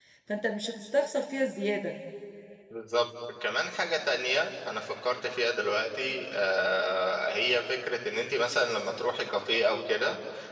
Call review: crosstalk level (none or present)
none